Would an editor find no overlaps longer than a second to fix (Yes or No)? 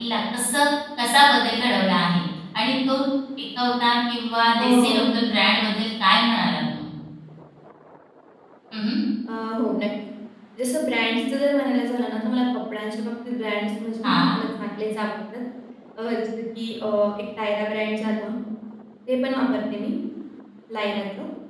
Yes